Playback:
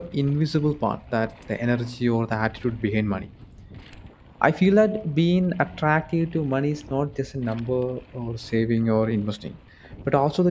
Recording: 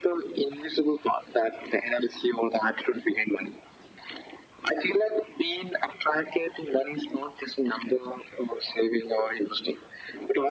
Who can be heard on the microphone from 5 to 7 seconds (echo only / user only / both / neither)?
echo only